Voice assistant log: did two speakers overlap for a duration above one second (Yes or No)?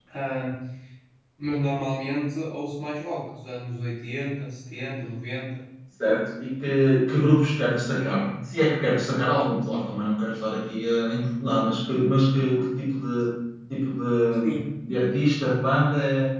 No